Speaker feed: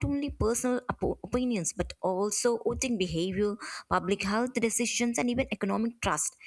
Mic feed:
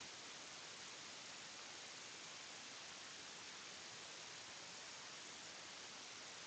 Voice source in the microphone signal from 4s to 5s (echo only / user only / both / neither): neither